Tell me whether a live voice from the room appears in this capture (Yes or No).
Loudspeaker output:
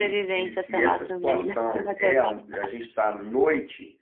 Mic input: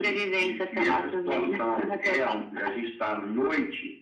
No